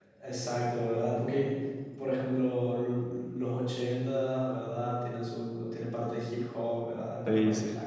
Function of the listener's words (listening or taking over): listening